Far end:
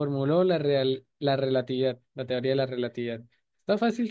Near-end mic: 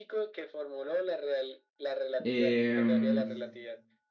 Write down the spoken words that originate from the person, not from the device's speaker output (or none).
Em,